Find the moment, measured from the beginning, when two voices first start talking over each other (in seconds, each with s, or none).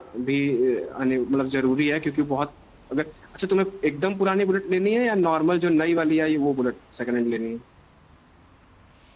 none